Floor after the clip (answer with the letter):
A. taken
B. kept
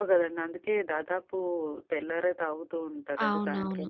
A